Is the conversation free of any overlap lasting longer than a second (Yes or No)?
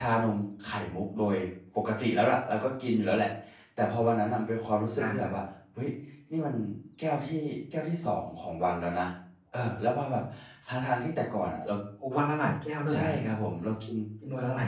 Yes